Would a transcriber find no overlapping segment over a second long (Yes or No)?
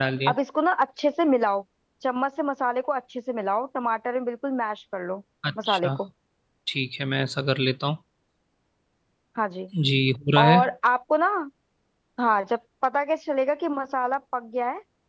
Yes